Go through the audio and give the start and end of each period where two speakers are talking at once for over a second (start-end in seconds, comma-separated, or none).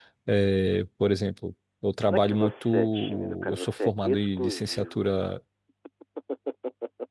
2.1-5.1